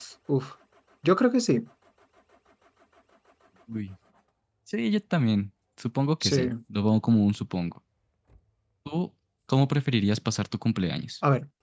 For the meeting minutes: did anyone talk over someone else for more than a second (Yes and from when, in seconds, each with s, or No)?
No